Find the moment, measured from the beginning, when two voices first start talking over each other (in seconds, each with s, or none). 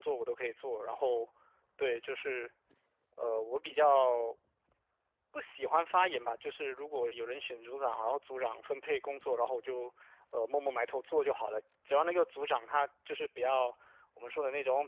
none